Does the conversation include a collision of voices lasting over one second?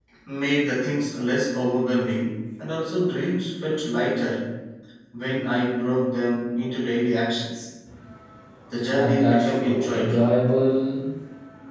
Yes, from 8.9 s

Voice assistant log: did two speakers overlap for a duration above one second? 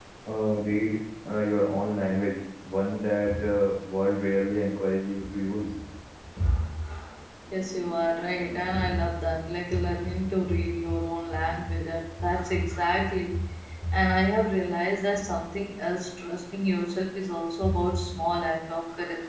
No

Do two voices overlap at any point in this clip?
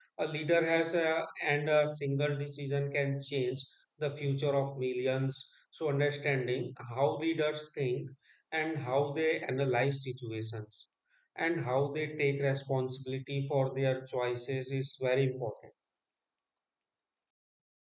No

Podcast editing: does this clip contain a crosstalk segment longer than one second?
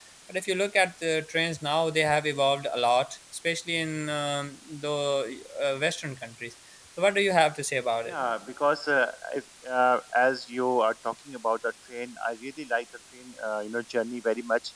No

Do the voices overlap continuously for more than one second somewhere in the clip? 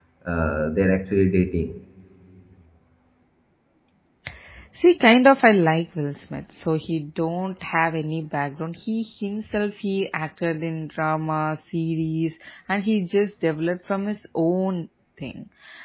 No

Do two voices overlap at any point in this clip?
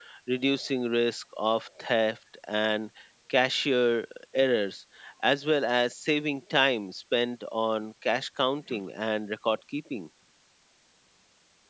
No

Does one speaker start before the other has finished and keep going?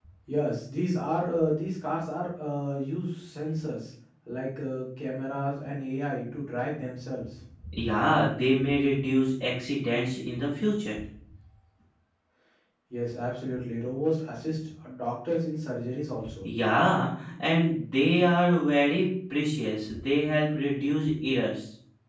No

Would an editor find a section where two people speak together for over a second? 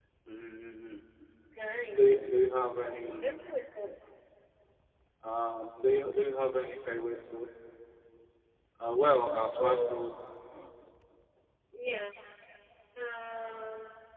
No

